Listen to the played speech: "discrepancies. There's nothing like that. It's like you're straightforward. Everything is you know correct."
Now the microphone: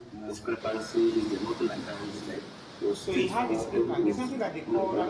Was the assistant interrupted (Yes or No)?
Yes